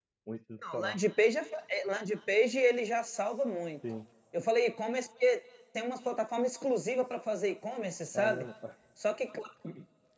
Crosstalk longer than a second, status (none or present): none